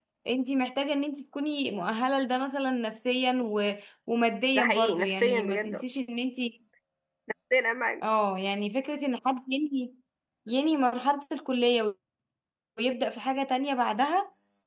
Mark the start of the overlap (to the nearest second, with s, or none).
5 s